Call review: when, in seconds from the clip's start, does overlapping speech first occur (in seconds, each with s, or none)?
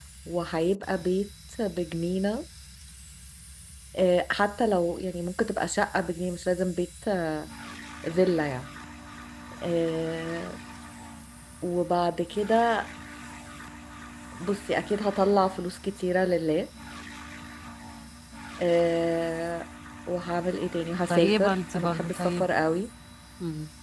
21.1 s